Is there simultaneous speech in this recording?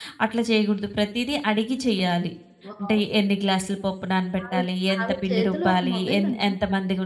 Yes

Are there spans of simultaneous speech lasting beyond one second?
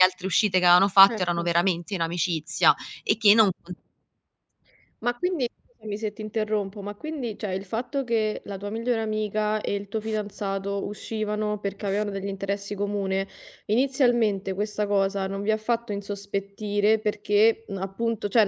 No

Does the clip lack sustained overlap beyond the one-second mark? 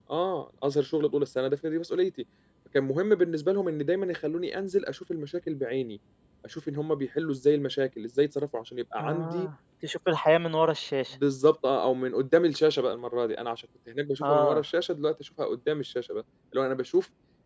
Yes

